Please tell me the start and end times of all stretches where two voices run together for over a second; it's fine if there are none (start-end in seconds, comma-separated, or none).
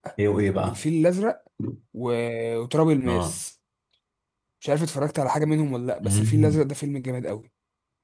none